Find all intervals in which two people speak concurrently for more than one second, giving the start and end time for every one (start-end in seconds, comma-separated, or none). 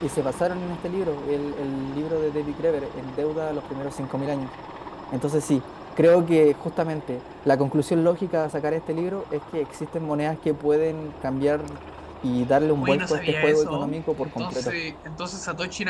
12.8-14.7